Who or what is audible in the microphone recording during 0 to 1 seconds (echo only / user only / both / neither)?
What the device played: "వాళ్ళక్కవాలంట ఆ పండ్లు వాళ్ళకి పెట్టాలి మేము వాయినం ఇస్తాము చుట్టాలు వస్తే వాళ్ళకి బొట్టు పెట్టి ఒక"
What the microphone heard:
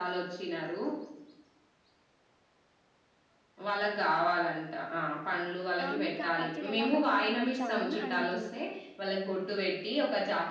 echo only